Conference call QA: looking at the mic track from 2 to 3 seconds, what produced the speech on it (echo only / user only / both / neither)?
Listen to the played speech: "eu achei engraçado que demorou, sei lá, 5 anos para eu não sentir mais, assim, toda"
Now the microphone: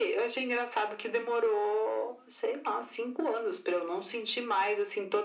echo only